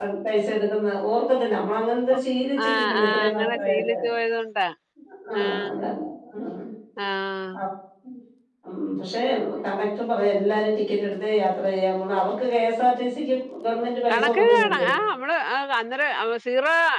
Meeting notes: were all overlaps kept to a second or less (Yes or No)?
No